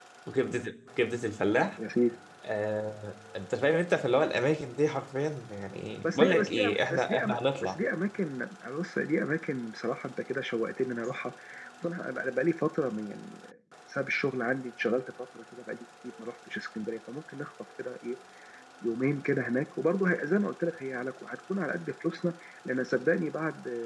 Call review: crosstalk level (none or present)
present